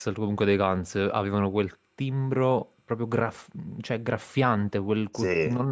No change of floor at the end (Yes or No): Yes